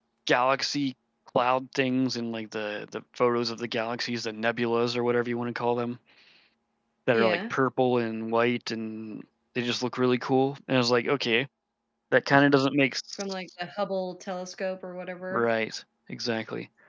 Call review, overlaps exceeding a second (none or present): none